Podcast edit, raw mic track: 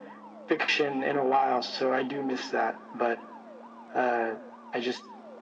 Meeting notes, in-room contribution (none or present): none